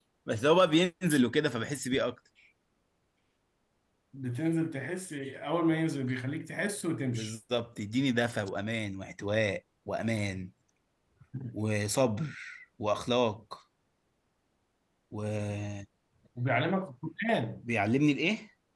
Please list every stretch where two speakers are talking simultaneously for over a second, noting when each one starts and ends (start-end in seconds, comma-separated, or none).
none